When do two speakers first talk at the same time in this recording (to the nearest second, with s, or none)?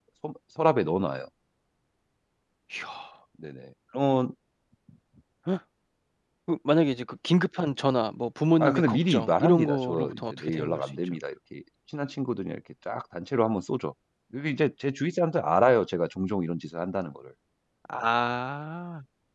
9 s